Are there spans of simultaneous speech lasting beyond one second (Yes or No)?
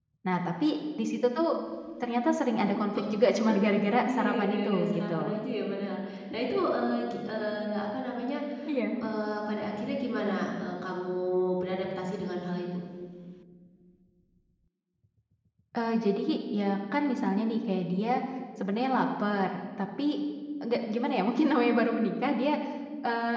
Yes